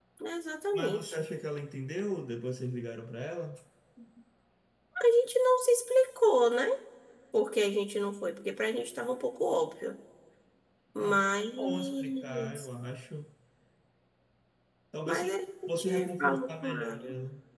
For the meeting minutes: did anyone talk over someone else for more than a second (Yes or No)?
Yes